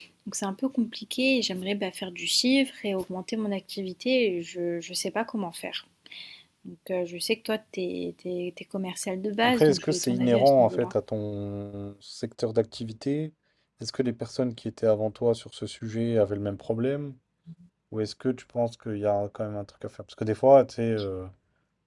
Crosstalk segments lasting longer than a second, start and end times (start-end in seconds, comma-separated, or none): 9.4-10.9